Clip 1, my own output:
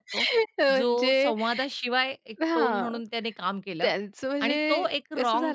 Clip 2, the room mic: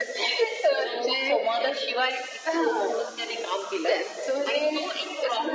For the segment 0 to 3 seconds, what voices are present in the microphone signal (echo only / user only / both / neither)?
echo only